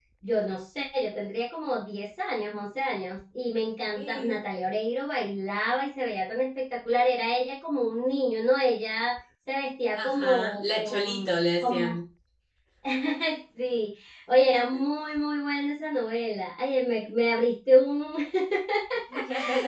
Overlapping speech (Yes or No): Yes